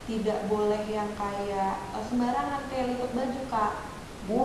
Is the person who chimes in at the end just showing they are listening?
No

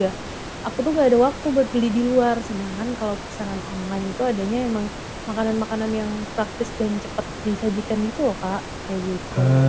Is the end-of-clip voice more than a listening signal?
Yes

